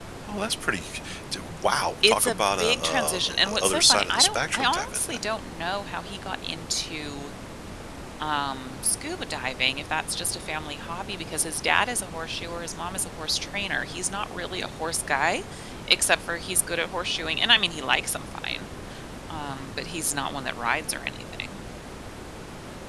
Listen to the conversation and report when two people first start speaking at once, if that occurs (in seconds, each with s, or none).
2.0 s